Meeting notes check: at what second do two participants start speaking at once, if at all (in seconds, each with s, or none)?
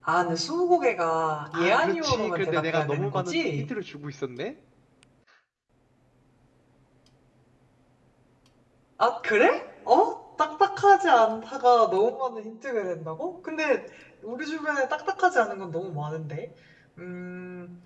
1.5 s